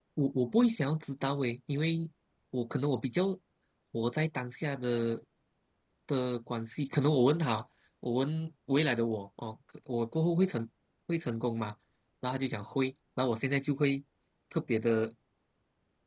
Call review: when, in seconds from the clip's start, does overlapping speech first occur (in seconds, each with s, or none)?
none